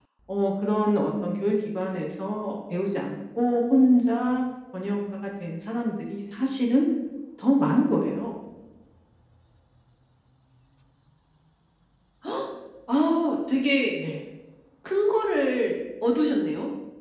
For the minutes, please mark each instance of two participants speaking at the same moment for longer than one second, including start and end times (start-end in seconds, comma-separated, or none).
none